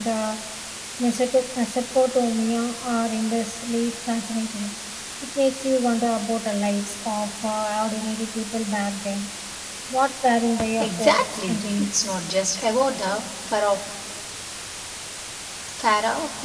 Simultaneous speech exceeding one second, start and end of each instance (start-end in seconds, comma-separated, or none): 10.8-12.2